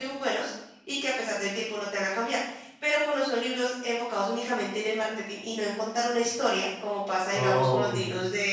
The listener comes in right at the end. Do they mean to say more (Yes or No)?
No